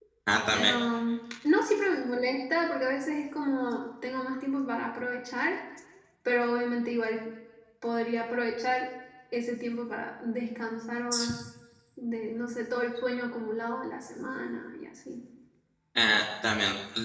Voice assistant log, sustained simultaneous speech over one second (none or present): none